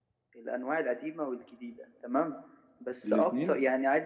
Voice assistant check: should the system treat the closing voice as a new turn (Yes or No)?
No